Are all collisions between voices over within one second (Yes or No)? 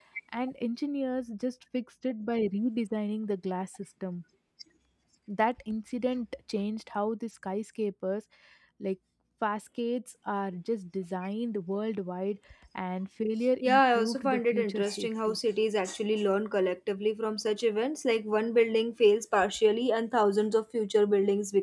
No